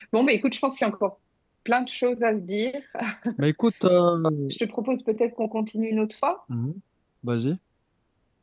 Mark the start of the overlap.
none

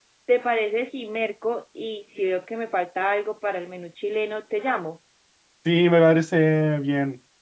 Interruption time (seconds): none

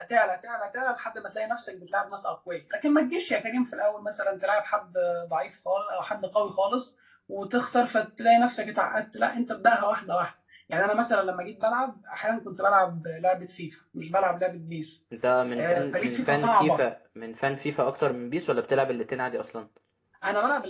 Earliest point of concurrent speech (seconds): 15.6 s

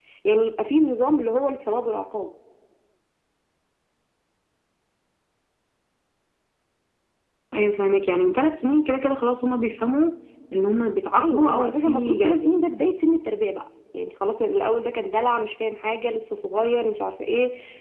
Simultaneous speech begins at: 11.2 s

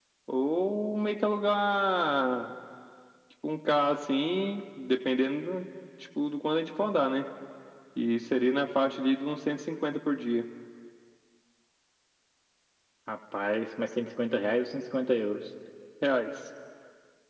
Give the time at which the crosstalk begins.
none

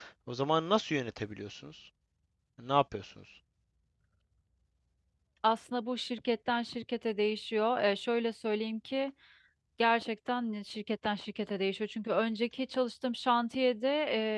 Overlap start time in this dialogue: none

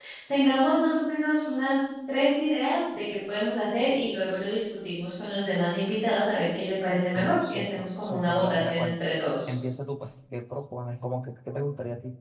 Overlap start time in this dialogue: 7.1 s

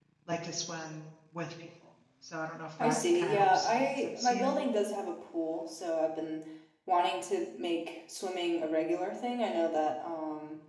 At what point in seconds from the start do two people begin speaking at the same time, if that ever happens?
2.8 s

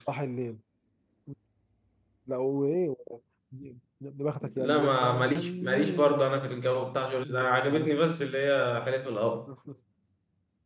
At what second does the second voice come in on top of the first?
4.4 s

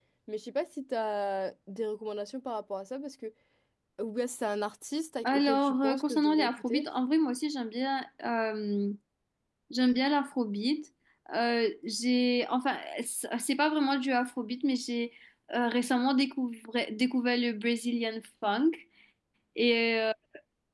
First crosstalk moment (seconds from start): 5.2 s

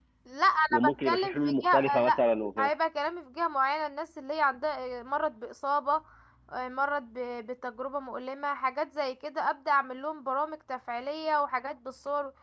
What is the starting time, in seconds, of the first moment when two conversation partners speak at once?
0.7 s

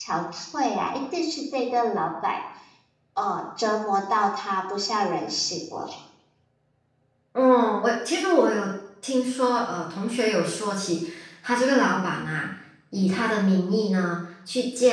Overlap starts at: none

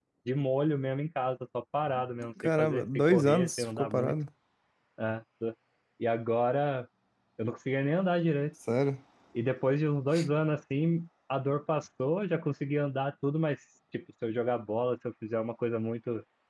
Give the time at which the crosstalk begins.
2.4 s

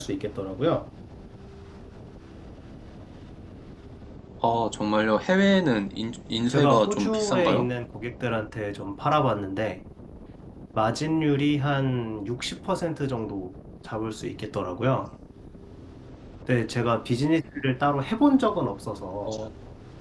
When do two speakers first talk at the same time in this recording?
6.5 s

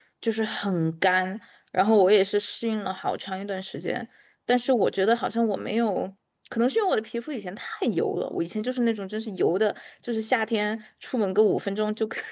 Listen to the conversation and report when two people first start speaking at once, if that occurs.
none

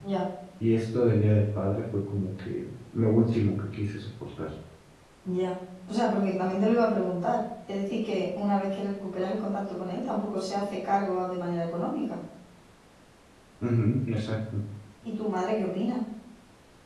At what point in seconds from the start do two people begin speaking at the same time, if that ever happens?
none

